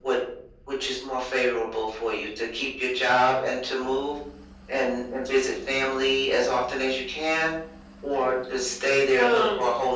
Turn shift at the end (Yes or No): No